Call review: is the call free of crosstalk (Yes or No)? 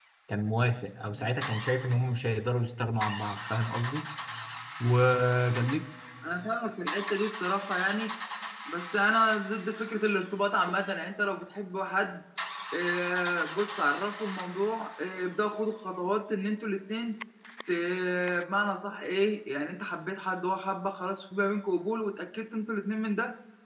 Yes